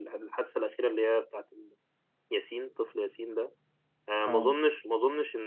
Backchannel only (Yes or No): Yes